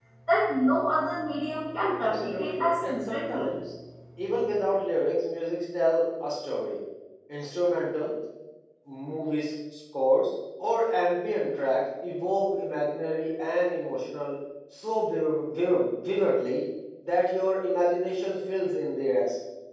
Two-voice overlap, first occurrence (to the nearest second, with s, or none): 2 s